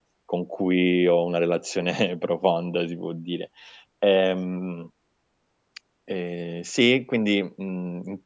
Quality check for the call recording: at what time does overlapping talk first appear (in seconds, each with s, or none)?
none